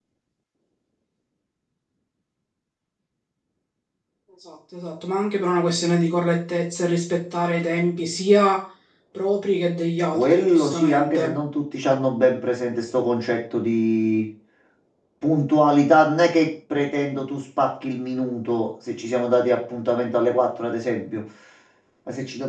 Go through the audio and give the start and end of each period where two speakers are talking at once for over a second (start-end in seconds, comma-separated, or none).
10.1-11.4